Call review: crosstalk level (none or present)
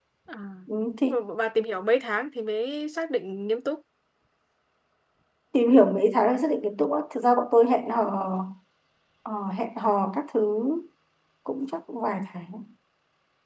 none